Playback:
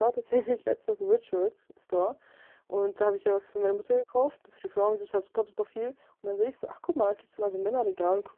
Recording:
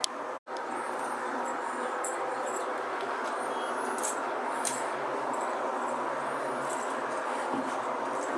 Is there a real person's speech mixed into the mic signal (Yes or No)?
No